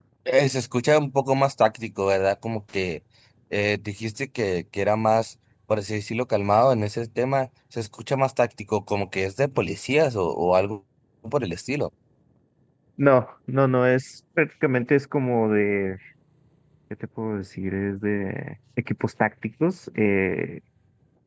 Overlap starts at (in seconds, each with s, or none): none